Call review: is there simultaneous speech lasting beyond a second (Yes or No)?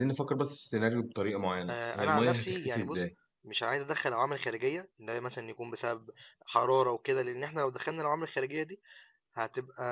Yes